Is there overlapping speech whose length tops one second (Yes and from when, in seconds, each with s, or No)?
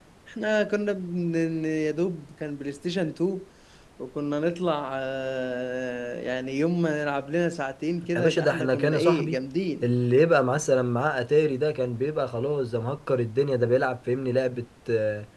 Yes, from 8.2 s